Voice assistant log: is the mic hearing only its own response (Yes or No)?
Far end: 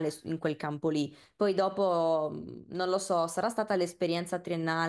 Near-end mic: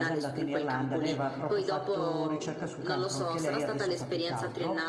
No